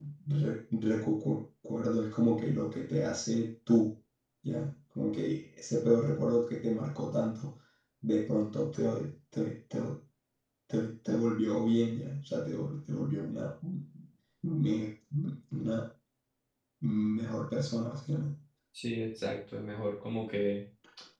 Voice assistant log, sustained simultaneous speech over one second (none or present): none